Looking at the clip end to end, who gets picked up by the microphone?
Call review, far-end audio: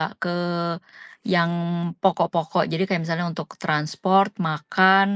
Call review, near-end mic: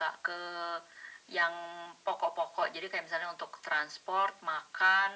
echo only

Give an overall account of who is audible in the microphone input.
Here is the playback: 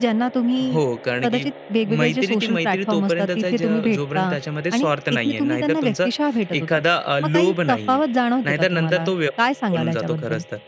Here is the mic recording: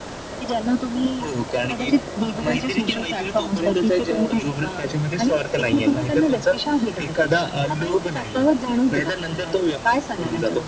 echo only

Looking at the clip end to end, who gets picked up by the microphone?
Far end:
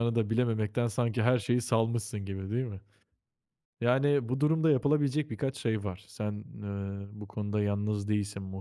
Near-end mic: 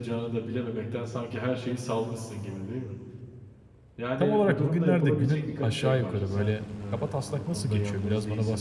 both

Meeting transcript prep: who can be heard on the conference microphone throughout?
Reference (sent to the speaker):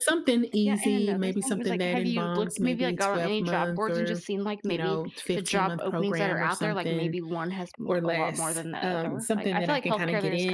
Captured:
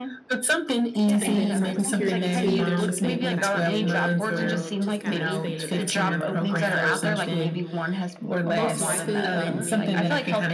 both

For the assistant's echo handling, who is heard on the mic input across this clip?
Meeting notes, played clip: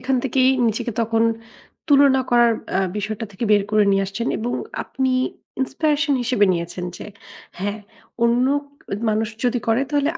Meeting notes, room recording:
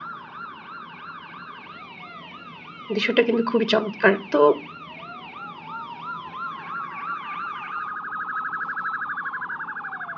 user only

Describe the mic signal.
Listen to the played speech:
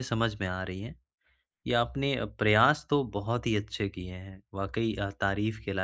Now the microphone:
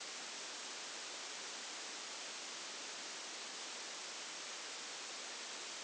neither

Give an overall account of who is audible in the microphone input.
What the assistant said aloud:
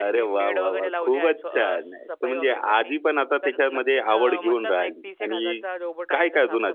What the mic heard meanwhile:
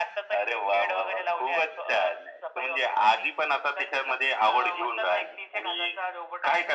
echo only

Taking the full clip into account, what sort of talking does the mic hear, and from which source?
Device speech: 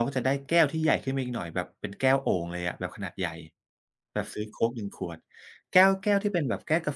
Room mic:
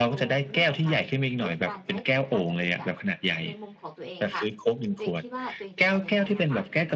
both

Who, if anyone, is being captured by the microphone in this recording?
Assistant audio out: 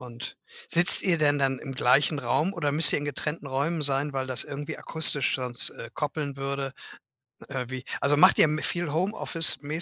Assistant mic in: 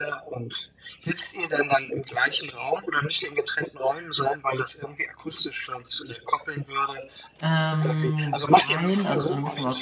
both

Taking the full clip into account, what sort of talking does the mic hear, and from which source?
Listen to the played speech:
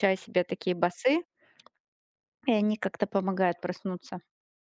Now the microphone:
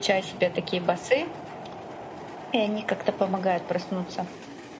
echo only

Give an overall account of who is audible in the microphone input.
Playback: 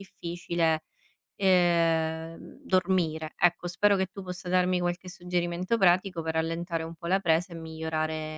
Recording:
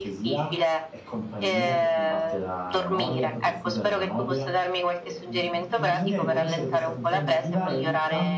both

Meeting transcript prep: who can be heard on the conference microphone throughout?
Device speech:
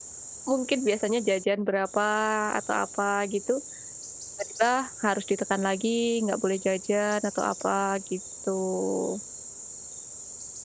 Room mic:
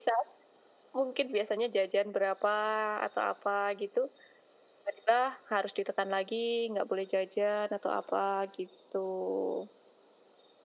echo only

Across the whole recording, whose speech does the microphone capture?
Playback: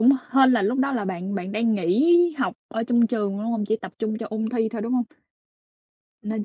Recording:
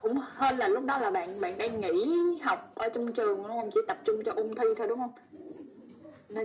echo only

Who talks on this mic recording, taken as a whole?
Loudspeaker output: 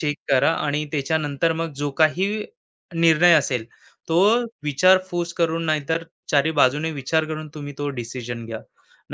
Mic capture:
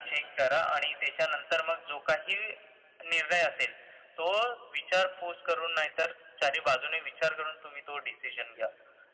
echo only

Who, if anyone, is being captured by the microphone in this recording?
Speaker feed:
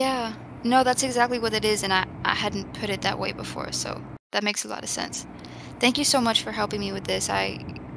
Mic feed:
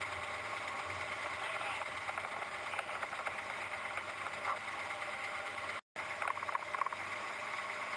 neither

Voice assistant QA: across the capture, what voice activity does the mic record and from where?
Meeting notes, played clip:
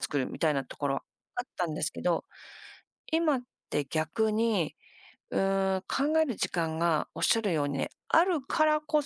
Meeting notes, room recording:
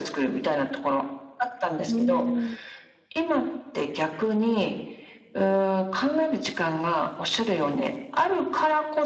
both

